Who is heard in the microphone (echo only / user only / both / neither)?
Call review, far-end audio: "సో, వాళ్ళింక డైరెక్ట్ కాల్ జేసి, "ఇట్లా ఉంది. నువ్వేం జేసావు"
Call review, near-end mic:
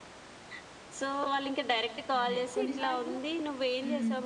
both